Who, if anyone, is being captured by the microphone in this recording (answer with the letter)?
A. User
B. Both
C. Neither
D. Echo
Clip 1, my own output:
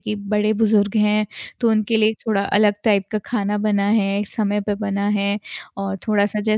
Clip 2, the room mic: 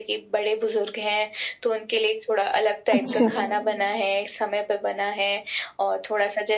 B